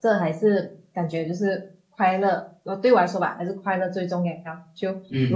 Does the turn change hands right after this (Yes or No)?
No